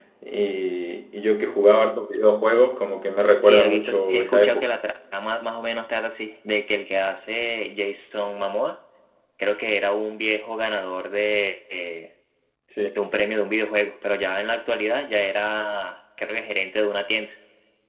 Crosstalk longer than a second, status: present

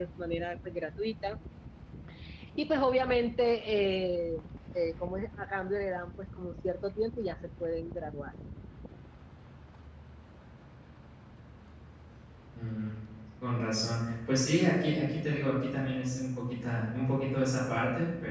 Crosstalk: none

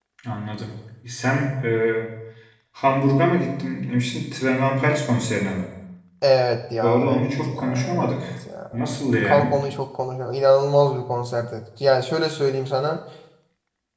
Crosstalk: present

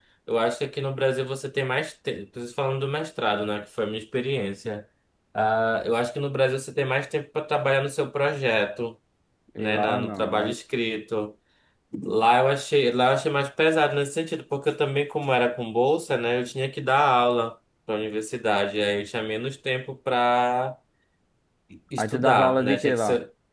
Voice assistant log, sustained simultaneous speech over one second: present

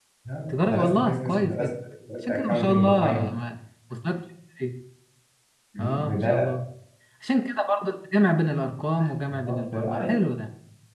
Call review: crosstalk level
present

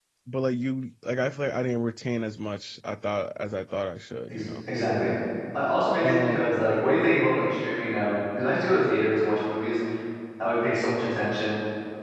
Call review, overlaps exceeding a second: none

